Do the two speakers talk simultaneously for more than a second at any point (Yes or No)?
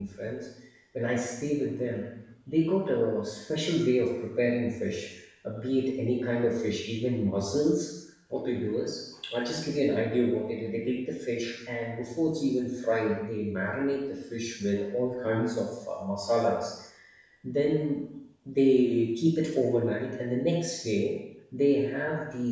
No